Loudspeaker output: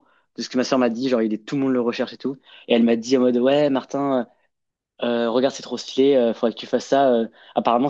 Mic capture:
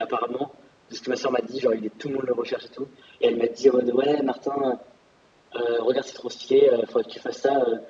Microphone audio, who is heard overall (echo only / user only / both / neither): echo only